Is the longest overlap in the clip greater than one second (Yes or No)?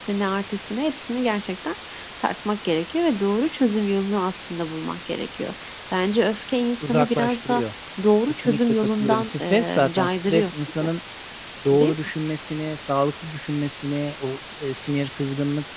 Yes